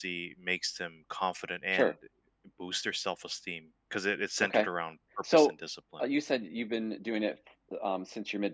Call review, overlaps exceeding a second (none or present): none